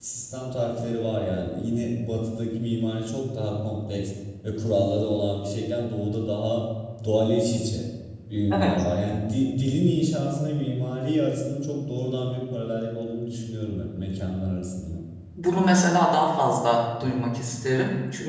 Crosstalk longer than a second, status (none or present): none